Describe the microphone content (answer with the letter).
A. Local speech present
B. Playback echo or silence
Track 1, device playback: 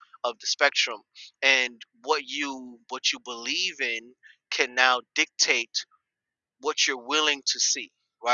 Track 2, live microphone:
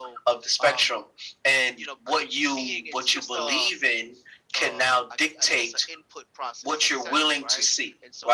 A